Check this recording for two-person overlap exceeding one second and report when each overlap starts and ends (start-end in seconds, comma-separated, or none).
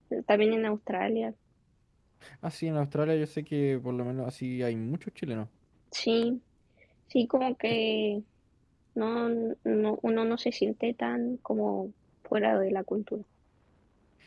none